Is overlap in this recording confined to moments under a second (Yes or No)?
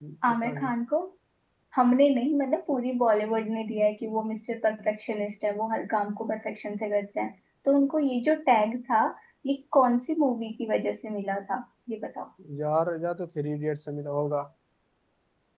Yes